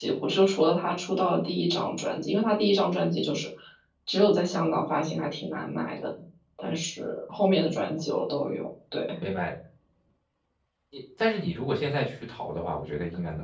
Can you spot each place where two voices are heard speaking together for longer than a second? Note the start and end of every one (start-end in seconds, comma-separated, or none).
none